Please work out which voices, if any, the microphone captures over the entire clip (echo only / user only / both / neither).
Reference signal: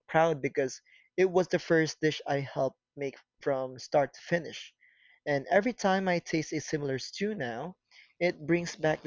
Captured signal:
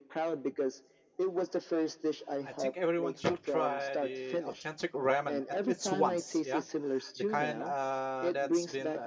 both